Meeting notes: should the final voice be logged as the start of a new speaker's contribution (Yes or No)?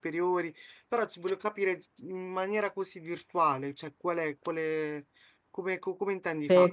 Yes